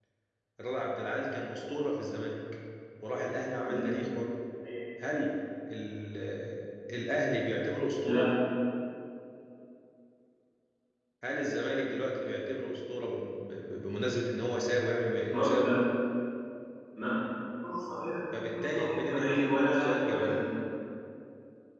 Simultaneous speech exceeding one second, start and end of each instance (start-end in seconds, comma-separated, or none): 18.5-20.4